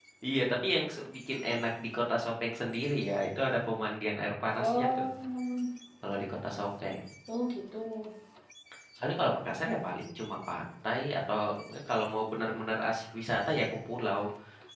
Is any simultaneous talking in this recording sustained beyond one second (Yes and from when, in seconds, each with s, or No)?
No